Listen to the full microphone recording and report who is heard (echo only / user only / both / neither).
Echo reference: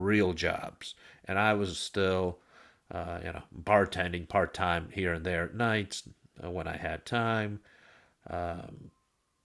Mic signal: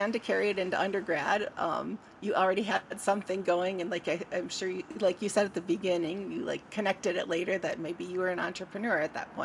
user only